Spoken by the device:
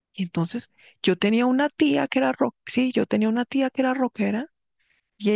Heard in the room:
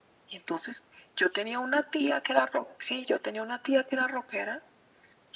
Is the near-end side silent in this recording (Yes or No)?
Yes